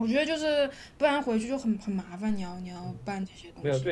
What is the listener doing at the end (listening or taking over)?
taking over